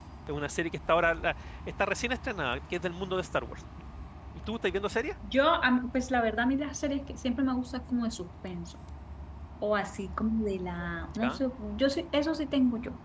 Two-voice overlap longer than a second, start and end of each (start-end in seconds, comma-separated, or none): none